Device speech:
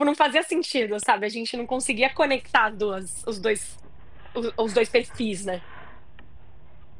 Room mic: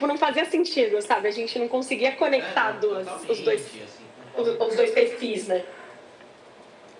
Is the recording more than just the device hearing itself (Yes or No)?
Yes